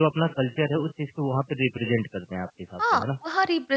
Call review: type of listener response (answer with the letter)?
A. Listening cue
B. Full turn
B